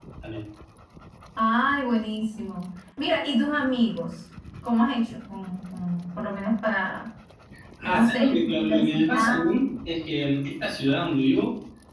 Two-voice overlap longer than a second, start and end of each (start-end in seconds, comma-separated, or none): 7.8-9.5